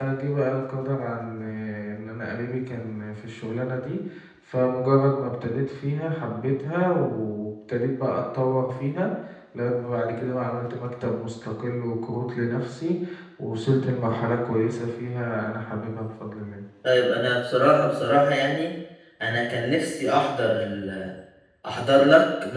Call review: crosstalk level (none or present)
none